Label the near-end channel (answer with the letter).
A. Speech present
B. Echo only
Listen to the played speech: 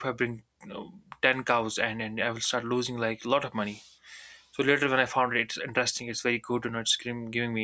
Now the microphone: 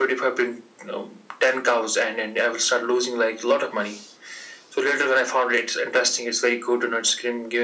B